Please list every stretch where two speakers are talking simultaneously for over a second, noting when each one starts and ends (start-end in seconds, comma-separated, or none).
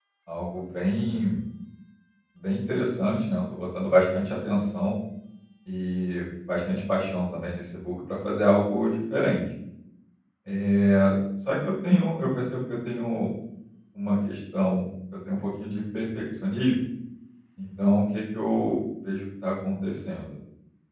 none